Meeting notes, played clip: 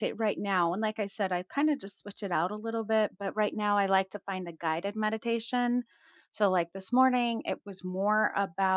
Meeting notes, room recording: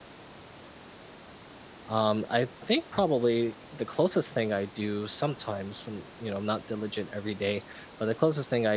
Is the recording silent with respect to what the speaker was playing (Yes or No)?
Yes